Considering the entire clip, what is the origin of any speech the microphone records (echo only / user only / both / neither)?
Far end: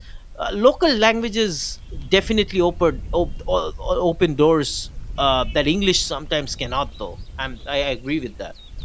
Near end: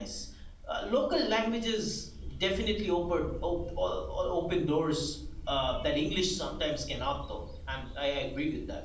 echo only